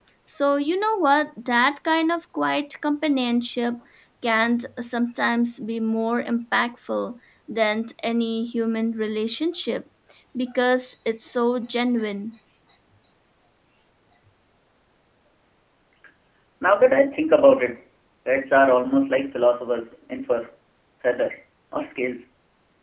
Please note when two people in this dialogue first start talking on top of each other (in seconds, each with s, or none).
none